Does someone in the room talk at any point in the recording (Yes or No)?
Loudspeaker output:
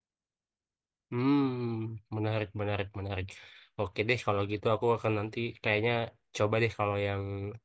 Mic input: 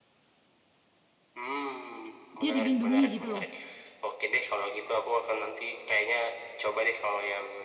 Yes